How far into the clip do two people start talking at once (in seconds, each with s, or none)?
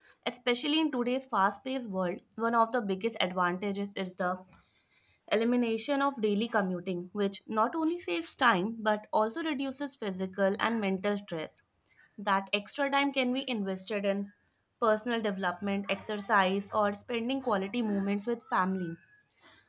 none